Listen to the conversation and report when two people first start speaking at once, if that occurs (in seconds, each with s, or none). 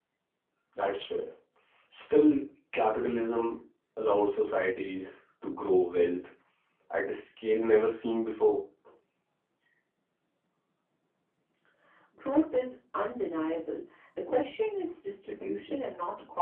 none